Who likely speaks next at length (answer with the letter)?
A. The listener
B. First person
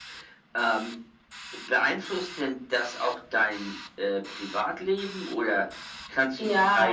B